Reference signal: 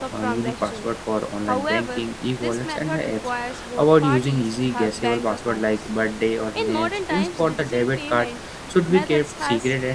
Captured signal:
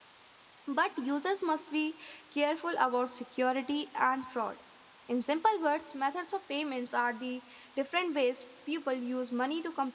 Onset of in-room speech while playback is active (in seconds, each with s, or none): 0.6 s